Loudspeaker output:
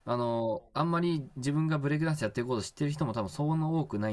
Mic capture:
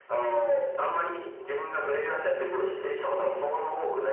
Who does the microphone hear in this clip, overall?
echo only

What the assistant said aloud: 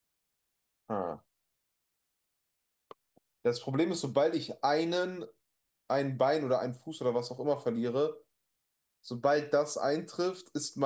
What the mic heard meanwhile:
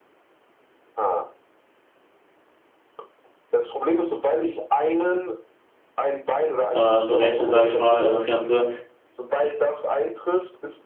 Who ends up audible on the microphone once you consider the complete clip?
both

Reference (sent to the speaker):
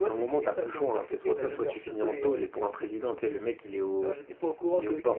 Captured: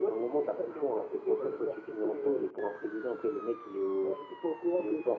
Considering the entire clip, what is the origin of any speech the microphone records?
echo only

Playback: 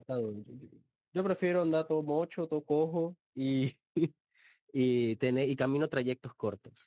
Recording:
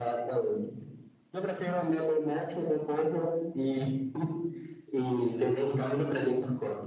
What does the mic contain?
echo only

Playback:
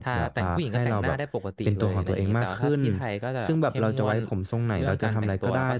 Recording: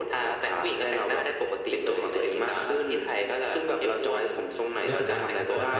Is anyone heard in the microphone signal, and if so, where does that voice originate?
both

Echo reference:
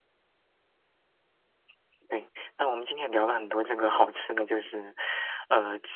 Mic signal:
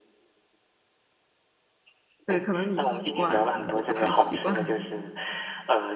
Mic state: both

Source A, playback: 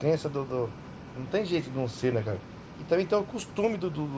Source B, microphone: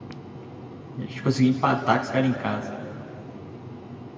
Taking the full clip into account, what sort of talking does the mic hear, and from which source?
user only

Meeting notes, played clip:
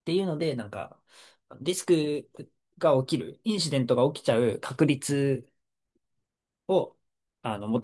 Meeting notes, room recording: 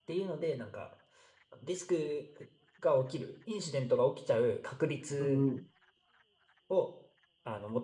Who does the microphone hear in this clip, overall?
both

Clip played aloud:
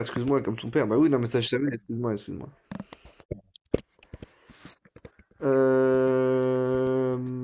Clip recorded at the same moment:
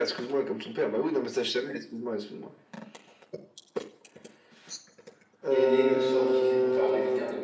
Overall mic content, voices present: both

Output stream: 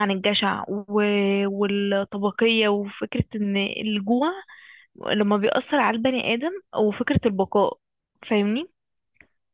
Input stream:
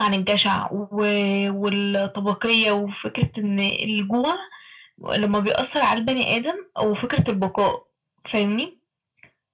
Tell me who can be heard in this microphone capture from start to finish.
echo only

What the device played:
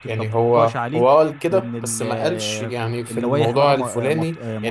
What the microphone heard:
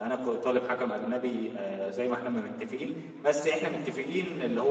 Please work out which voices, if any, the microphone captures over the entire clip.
user only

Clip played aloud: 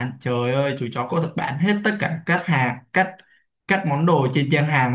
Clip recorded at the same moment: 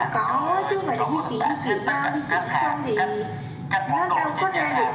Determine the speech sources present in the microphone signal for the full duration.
both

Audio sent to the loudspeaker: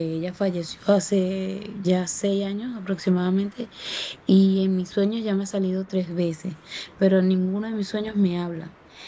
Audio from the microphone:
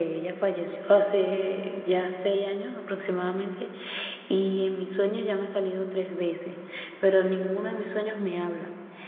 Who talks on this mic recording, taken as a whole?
echo only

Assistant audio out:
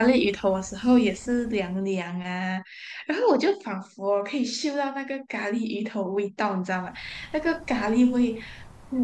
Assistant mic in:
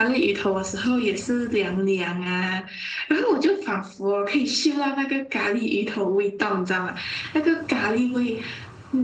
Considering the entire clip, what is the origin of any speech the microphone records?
echo only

